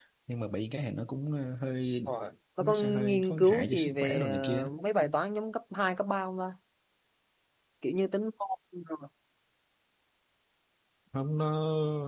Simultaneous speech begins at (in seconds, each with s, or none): 2.6 s